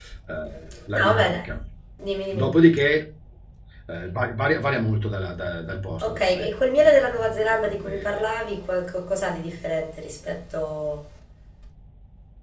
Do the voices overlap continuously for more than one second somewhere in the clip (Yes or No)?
Yes